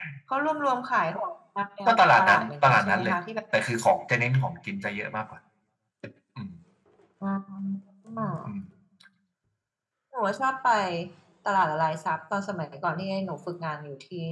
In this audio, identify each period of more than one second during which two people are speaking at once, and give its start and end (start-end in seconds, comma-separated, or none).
1.9-3.2